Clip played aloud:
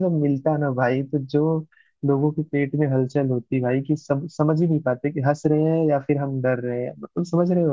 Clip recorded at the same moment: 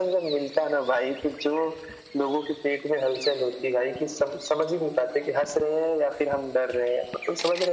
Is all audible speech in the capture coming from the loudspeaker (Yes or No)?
Yes